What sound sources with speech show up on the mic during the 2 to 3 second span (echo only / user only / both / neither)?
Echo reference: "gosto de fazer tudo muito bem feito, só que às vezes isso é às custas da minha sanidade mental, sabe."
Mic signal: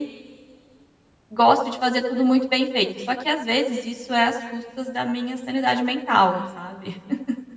echo only